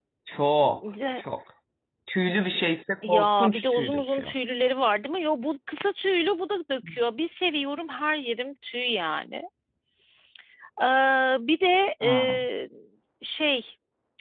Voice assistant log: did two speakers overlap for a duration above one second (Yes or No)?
Yes